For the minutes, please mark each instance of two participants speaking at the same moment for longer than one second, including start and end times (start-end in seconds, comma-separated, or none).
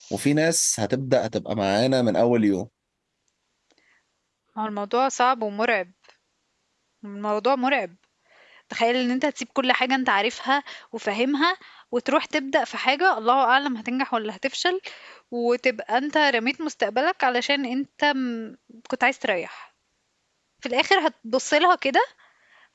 none